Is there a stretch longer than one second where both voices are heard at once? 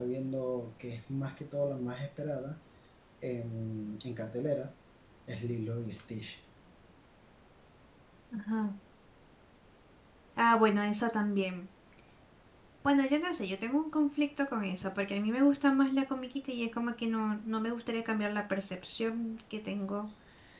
No

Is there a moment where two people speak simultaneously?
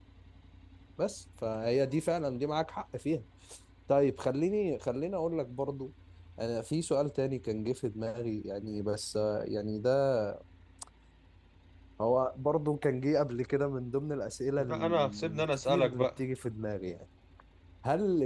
Yes, from 14.6 s

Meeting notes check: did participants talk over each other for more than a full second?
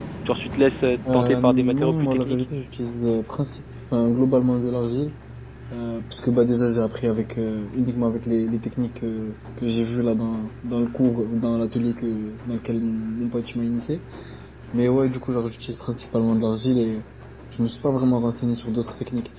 Yes, from 1.1 s

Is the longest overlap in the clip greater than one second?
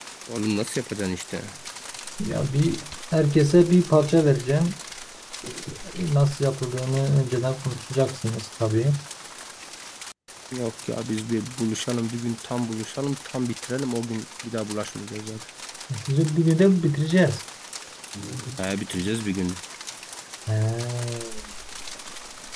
No

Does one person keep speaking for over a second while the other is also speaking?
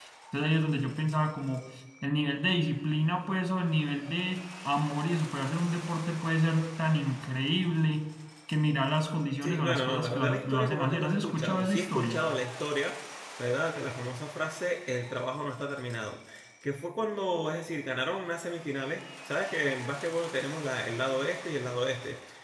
Yes, from 9.4 s

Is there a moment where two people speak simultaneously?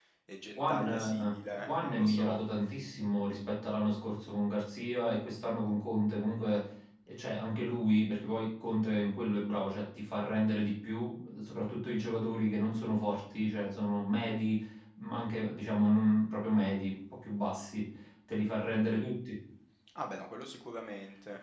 Yes, from 0.6 s

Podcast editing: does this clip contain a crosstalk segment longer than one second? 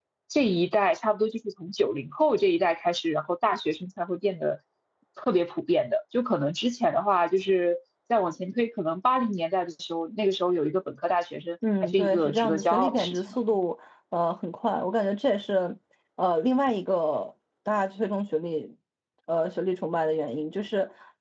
Yes, from 11.6 s

